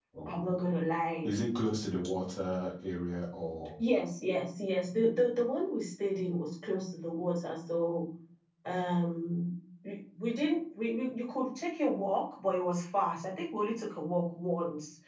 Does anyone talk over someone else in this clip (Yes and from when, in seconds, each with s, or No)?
No